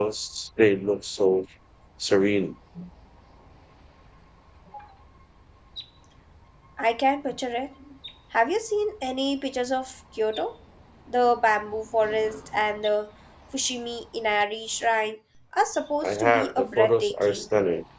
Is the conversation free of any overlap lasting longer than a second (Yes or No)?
No